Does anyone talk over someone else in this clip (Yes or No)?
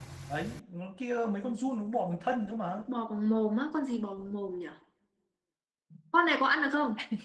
No